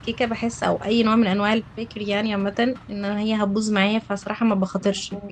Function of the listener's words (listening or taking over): listening